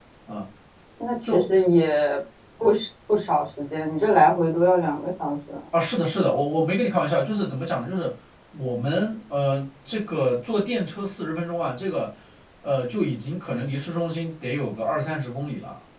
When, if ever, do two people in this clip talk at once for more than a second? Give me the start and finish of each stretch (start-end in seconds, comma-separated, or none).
none